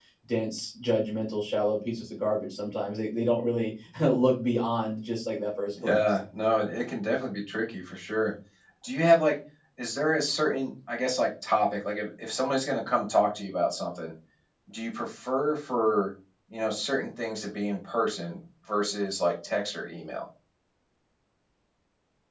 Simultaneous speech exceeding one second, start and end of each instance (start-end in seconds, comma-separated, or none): none